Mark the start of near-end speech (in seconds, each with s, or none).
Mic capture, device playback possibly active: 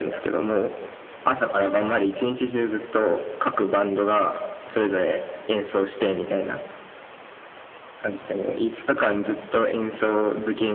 none